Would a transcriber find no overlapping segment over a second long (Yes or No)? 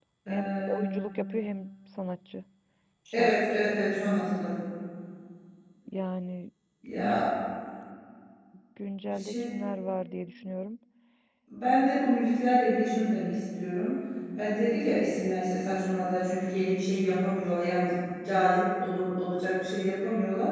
Yes